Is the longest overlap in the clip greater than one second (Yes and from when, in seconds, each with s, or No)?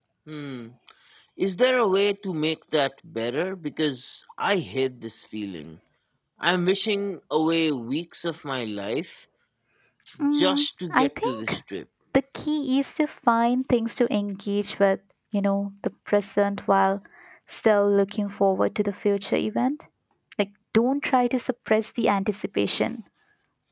Yes, from 10.3 s